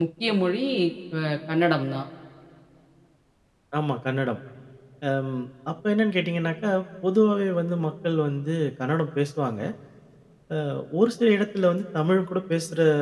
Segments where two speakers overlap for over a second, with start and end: none

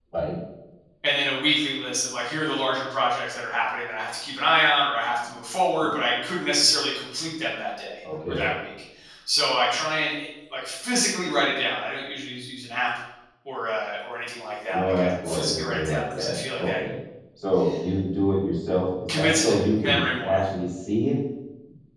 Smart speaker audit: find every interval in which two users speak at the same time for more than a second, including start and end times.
14.7-16.7, 19.2-20.4

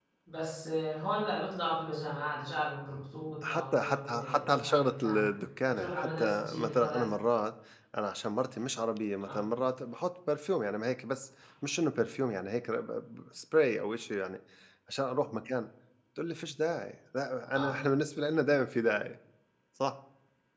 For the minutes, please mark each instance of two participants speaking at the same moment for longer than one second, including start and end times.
3.4-5.2, 5.7-7.1

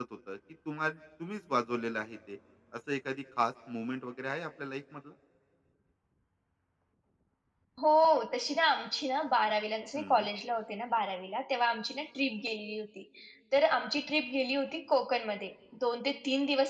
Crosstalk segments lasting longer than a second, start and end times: none

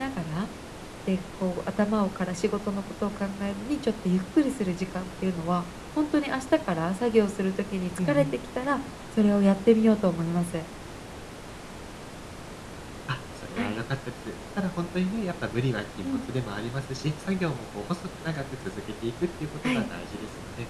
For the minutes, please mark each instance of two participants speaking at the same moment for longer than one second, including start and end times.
none

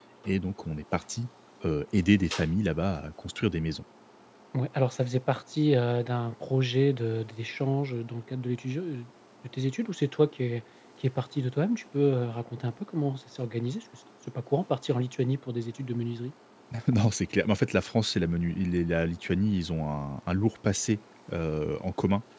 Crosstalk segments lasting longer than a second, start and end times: none

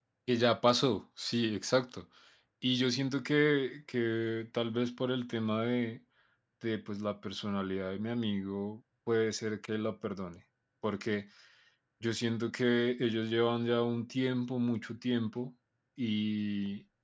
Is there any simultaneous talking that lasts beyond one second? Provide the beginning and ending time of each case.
none

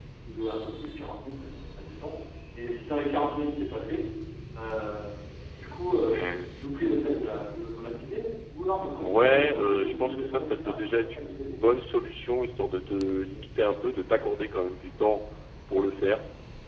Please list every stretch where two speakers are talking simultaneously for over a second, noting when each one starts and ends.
9.0-11.6

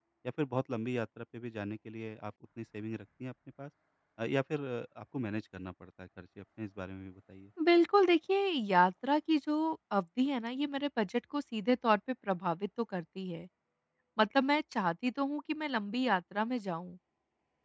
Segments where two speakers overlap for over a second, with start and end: none

